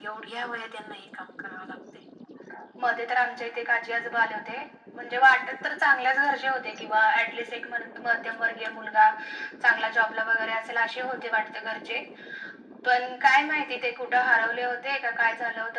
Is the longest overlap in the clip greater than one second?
No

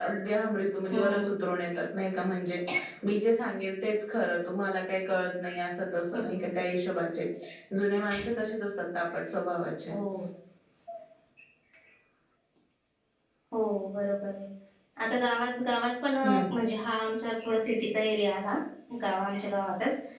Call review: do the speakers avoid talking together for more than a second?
Yes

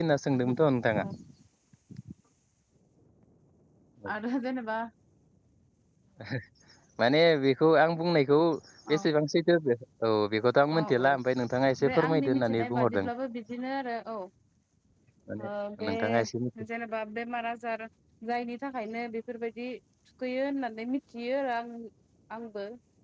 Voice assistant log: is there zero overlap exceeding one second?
No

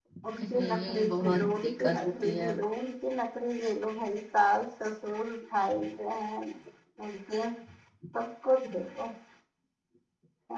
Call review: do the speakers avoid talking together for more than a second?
No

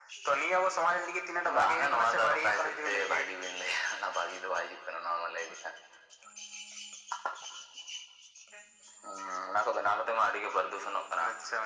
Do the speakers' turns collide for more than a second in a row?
Yes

